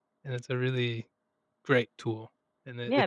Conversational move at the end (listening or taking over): taking over